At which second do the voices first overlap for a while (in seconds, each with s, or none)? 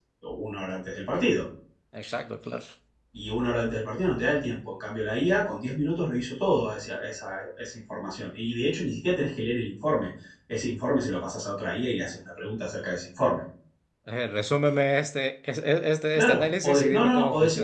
16.1 s